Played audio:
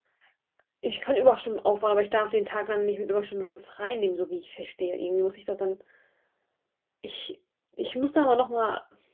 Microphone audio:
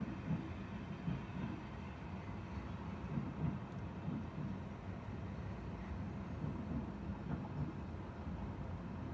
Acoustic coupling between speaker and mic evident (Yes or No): No